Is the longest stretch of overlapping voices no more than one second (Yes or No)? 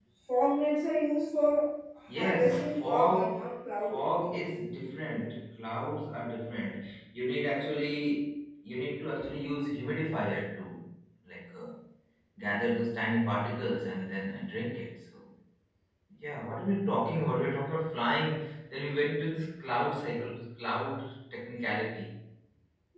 No